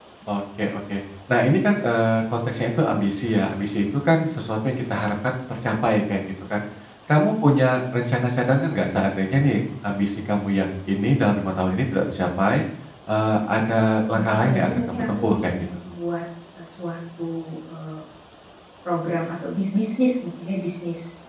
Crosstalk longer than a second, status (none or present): present